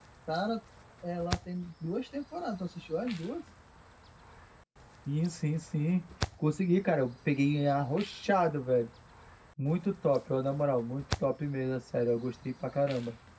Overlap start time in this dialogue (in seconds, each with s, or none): none